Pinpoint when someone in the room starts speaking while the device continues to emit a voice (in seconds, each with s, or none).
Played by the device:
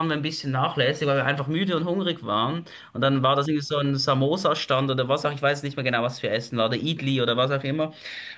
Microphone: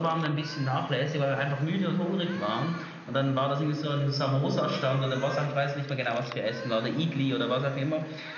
none